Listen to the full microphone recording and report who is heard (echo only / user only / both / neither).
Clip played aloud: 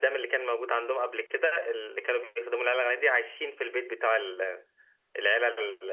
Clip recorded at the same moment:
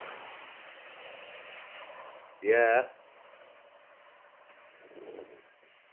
user only